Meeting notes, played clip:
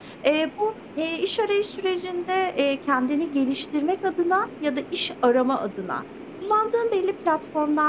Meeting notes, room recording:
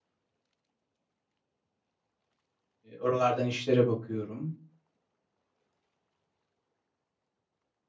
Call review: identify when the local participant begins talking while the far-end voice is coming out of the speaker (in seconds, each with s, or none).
3.0 s